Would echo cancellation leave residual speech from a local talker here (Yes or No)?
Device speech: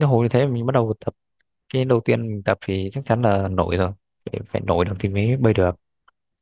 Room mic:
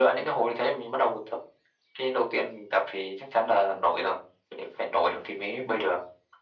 No